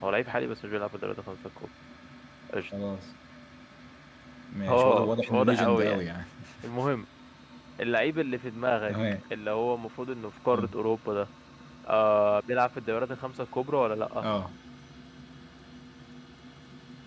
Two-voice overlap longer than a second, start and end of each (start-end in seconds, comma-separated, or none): 4.7-6.0